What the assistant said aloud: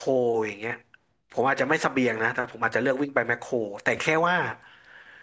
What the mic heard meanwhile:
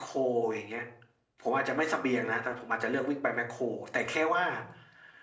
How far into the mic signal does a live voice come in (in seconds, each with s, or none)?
none